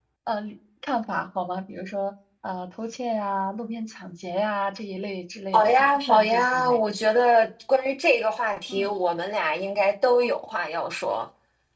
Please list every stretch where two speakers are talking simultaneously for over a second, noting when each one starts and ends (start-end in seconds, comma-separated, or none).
5.5-6.8